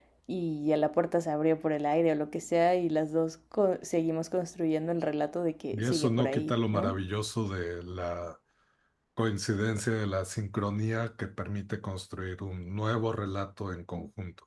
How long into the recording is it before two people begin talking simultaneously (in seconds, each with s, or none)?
5.7 s